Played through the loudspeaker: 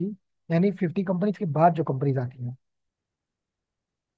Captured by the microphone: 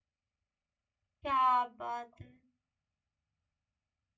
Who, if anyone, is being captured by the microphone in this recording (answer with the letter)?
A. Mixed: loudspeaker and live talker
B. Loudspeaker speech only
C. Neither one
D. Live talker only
D